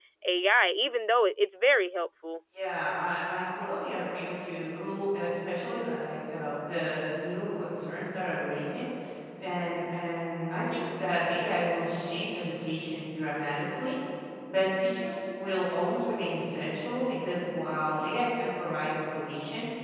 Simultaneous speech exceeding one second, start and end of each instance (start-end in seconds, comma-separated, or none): none